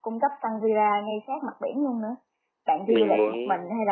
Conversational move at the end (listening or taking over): listening